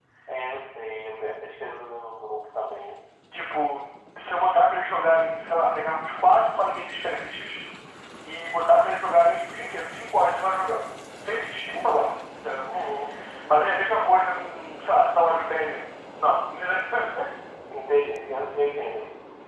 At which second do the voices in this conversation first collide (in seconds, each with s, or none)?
none